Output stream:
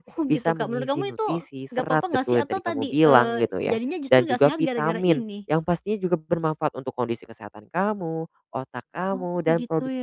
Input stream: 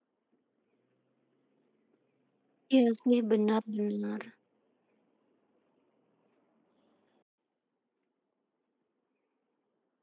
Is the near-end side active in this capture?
Yes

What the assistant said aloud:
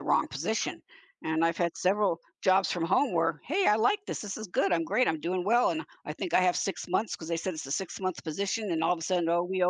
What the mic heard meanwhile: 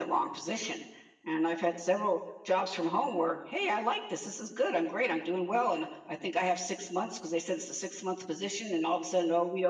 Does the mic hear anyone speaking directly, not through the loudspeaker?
No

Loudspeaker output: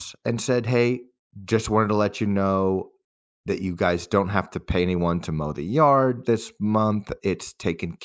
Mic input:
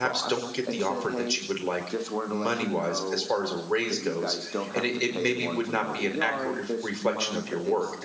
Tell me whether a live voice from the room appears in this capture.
Yes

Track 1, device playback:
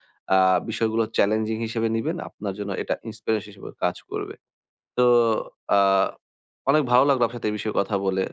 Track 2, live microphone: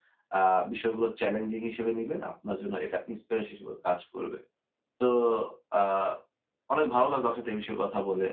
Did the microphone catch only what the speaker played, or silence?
Yes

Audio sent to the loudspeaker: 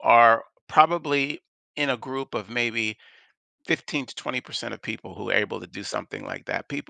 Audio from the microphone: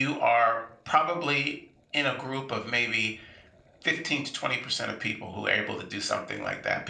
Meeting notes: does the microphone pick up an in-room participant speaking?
No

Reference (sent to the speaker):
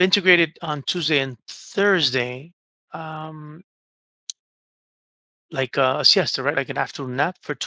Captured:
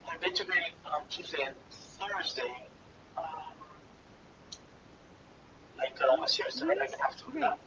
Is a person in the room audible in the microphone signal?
Yes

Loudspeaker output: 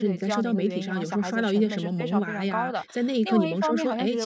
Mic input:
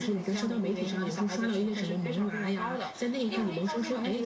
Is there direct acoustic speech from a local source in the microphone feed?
No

